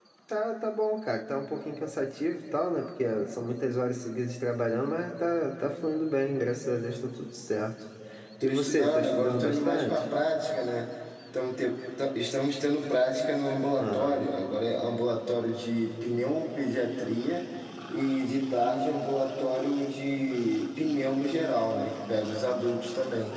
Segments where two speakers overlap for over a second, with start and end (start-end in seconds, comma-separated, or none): 8.4-10.0